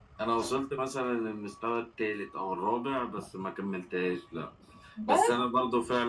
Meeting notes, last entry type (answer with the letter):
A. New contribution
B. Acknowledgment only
B